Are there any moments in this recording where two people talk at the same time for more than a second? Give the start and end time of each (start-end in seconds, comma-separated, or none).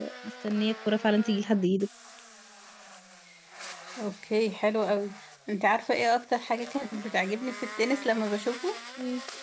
none